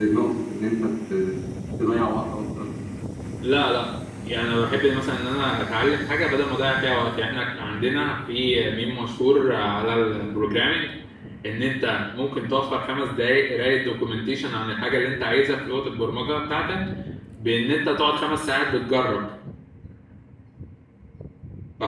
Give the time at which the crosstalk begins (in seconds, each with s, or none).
none